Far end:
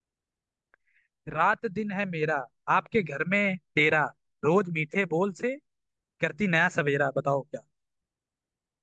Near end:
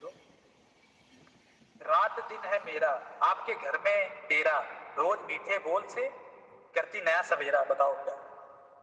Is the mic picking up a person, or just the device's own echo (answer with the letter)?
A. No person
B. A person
A